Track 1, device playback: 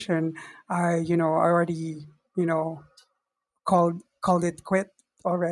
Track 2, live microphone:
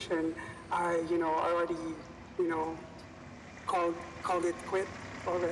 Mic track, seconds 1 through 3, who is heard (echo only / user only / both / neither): echo only